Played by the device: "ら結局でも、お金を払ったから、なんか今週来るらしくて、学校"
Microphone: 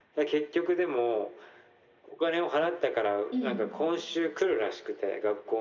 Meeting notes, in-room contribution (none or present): present